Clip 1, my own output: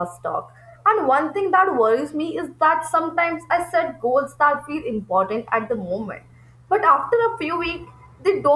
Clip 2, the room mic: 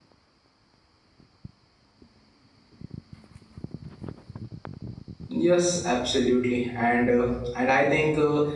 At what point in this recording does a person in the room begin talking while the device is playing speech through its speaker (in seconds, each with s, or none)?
5.3 s